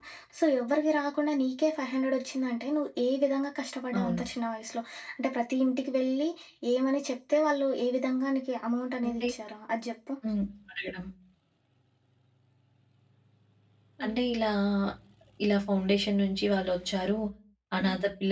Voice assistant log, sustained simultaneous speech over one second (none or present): none